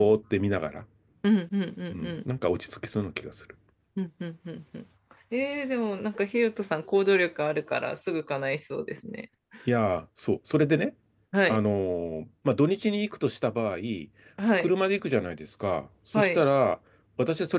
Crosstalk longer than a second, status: none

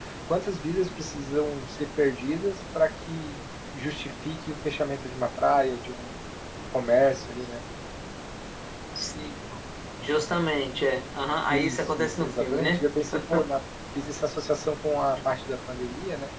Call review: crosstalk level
present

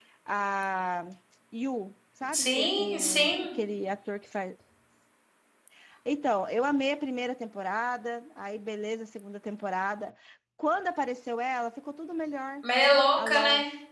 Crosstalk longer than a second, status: present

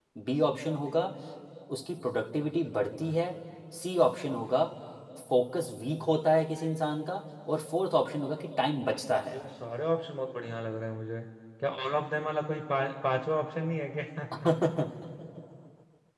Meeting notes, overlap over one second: none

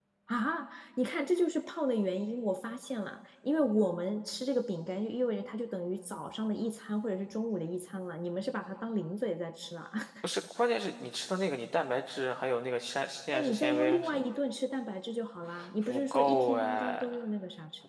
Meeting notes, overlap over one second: present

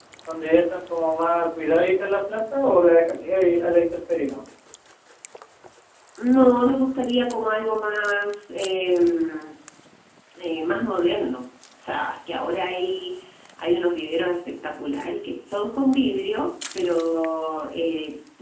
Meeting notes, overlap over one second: none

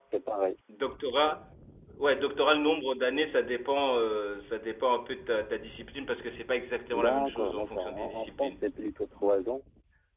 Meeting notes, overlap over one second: present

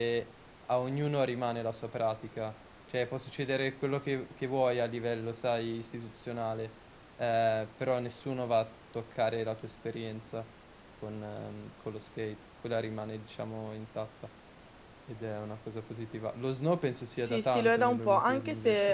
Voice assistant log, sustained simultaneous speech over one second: present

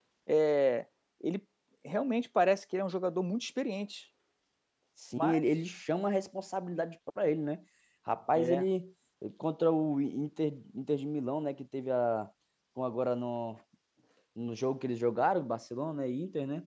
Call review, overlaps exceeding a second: none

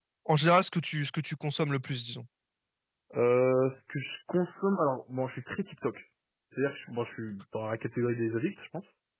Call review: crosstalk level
none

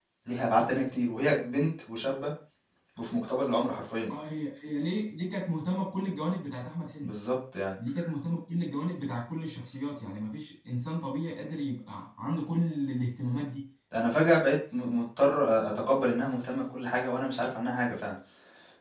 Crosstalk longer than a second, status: none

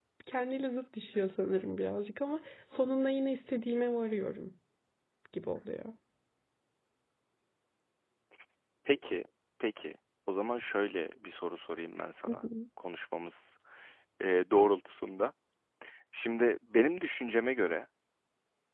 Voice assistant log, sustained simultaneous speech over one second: none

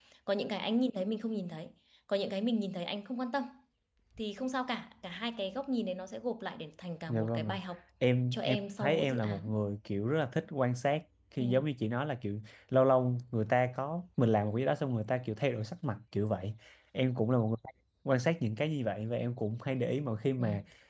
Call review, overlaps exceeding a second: present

